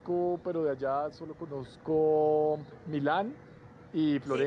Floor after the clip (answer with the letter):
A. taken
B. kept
B